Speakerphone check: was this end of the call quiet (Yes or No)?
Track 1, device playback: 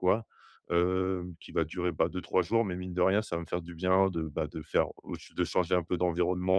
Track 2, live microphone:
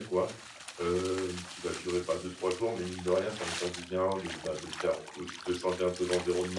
Yes